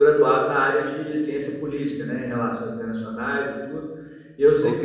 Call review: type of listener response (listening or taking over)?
listening